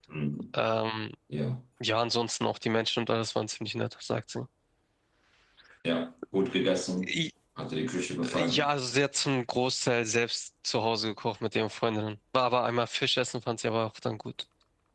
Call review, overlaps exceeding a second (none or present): none